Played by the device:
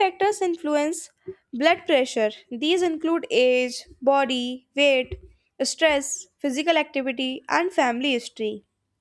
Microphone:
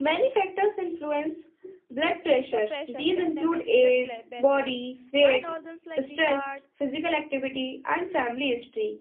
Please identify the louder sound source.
echo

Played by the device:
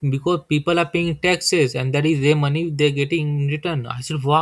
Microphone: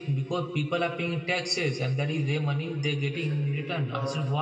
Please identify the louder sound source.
echo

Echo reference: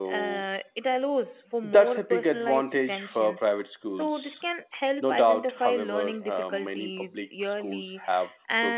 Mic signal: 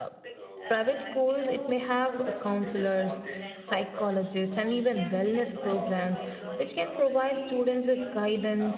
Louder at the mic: user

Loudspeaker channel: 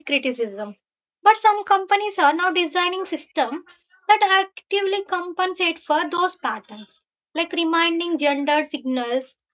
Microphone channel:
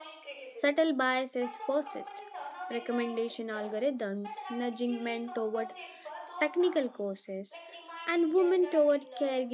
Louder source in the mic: user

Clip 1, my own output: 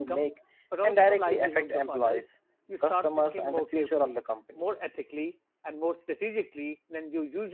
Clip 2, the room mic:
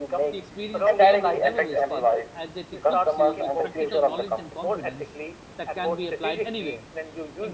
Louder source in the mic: echo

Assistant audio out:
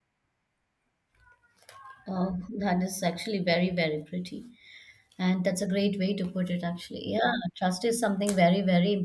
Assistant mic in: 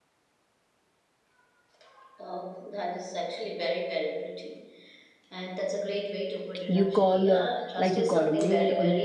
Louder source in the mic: user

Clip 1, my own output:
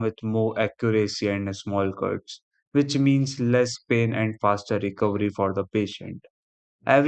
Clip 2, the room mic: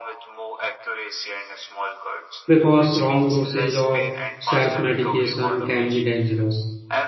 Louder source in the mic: user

